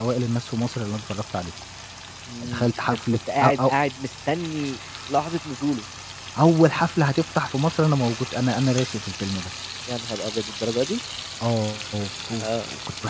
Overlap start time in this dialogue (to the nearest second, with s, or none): 2 s